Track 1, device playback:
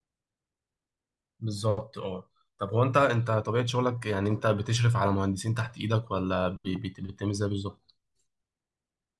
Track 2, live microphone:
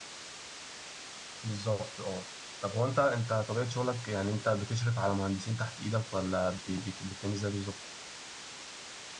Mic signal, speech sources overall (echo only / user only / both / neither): echo only